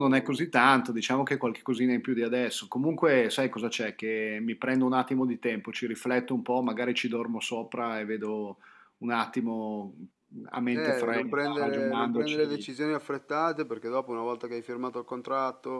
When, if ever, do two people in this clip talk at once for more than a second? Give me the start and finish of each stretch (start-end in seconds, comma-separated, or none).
10.7-12.7